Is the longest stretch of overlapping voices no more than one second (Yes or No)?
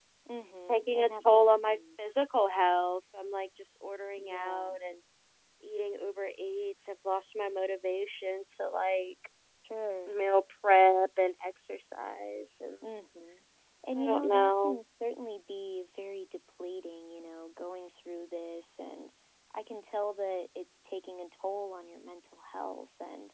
No